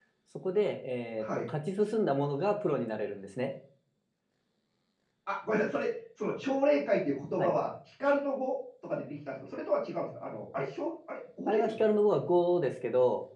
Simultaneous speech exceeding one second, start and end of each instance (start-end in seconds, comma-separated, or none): none